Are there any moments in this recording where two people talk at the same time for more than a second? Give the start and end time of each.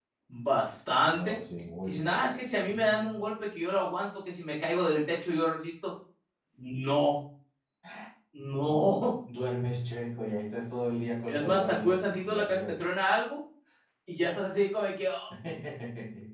1.9-3.2, 11.3-12.9

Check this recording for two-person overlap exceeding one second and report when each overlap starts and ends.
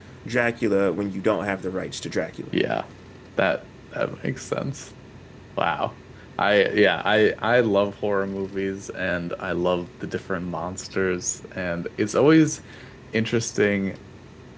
none

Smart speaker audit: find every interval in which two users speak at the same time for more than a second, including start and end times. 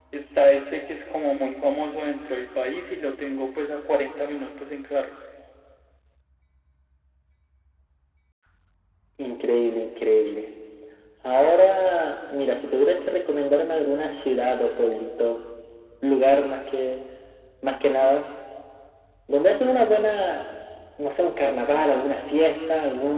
none

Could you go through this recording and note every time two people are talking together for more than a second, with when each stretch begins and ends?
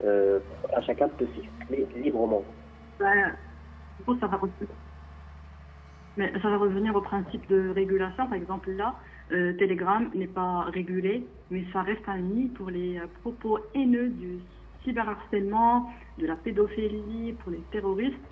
none

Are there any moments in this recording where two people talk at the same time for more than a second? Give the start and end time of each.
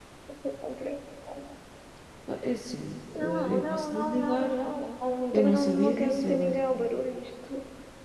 3.1-4.5, 5.3-6.6

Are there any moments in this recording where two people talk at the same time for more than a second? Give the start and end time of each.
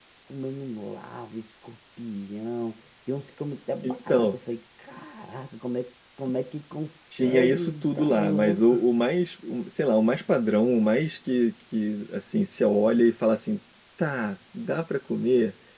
7.1-8.8

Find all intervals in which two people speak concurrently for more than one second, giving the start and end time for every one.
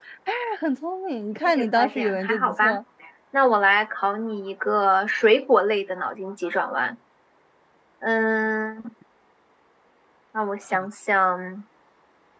1.4-2.8

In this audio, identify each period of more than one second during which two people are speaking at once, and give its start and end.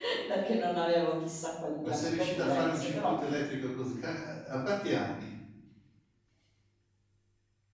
1.8-3.2

